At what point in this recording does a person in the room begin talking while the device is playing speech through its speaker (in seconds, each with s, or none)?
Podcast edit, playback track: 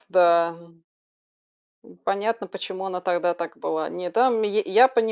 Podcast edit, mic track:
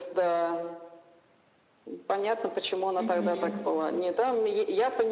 3.0 s